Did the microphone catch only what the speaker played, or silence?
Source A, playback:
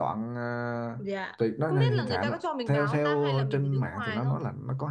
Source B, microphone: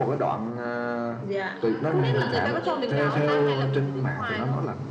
No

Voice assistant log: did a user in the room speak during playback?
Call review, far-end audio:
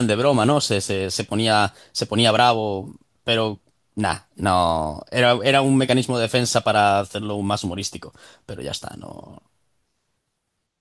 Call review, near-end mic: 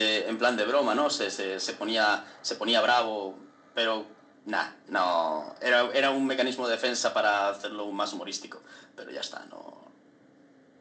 No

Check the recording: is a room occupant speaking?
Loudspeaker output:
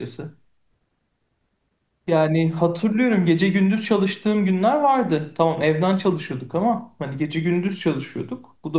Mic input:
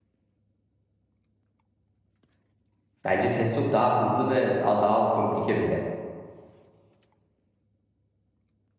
Yes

